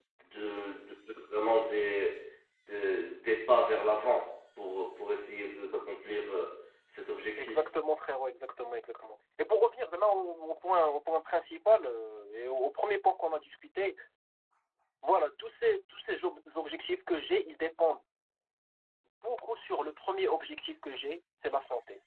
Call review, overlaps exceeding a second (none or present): none